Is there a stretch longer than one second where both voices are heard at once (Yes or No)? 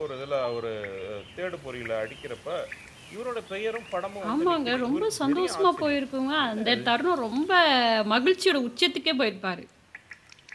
Yes